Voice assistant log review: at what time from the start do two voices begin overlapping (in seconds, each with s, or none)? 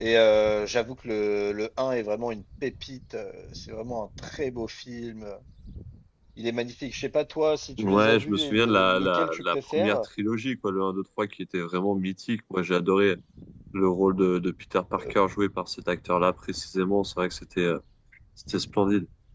7.8 s